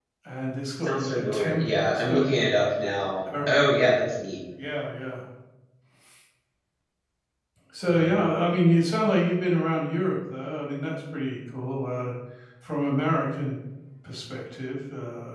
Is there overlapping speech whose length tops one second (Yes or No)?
Yes